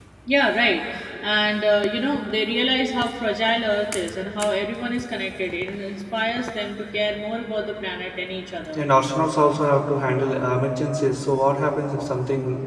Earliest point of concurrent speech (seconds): none

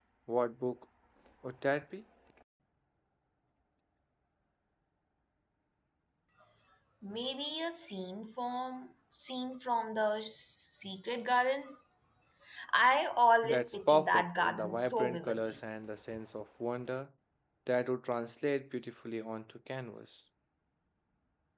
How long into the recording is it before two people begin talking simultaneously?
13.4 s

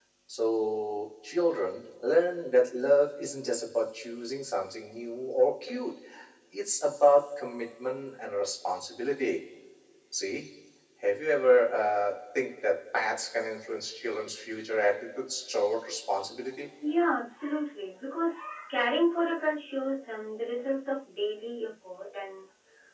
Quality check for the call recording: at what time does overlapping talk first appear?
none

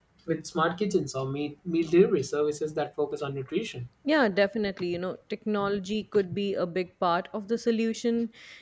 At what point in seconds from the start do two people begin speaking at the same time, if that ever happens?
none

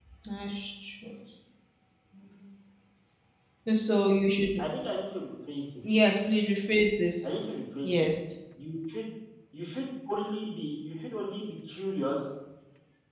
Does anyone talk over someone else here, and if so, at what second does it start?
none

